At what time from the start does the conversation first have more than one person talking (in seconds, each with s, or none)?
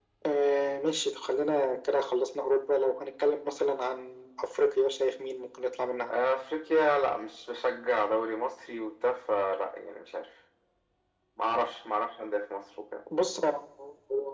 none